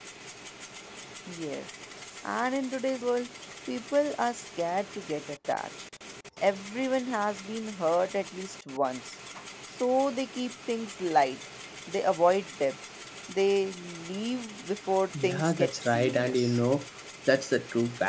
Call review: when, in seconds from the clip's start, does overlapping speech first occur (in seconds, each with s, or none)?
15.1 s